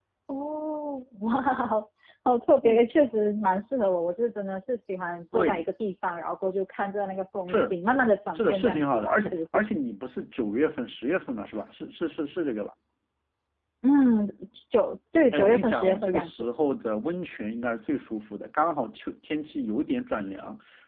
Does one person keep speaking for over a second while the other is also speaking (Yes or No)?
Yes